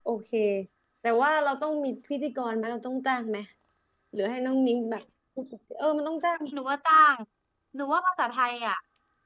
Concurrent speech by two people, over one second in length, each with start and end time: none

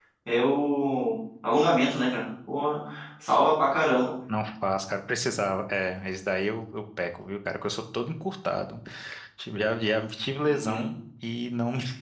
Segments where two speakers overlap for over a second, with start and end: none

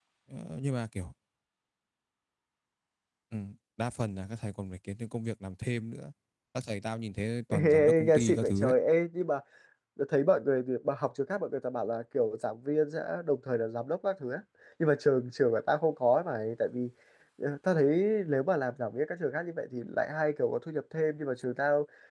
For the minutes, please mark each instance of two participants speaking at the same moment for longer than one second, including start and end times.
7.5-8.8

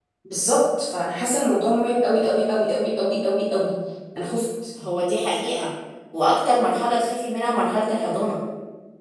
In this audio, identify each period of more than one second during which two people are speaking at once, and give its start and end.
none

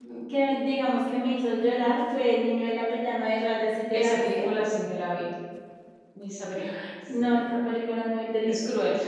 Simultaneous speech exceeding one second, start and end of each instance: none

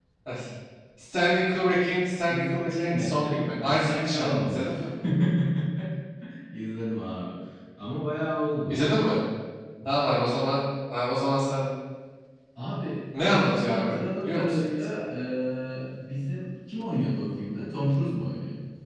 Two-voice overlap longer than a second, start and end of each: 2.3-4.8, 13.2-15.0

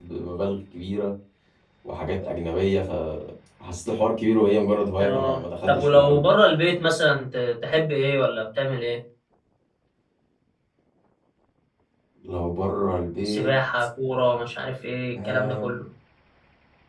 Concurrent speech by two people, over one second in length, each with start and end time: 5.0-6.2

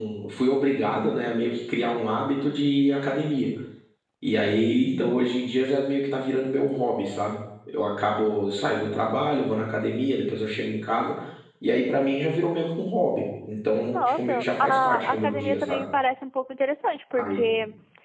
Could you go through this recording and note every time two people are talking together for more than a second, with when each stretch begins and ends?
13.9-15.9

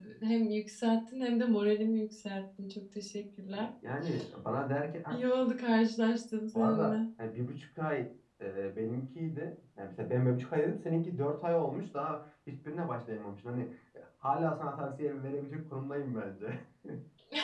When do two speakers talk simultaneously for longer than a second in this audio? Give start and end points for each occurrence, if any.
none

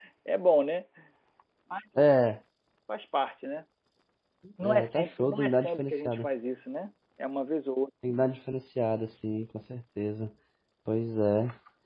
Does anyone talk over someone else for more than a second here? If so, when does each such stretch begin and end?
4.6-6.3

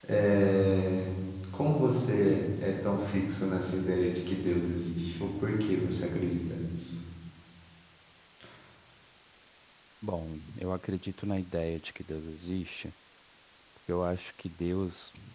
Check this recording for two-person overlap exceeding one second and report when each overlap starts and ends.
none

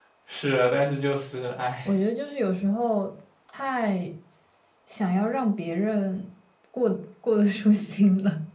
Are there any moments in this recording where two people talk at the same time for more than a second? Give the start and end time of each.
none

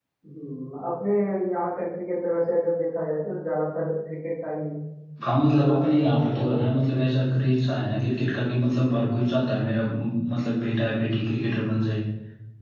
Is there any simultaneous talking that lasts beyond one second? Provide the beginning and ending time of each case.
5.5-7.0

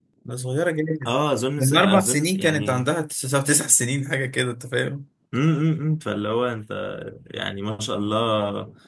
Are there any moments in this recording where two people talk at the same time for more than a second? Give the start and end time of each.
1.6-2.9

